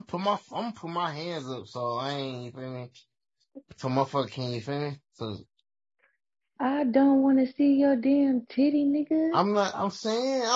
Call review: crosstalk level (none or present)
none